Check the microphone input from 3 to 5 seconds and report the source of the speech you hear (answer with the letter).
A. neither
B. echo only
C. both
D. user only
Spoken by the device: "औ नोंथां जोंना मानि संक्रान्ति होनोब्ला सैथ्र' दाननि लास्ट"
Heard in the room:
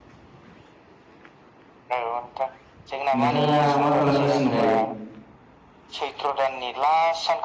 C